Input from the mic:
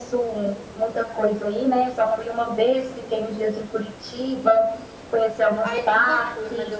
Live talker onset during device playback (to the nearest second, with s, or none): 6 s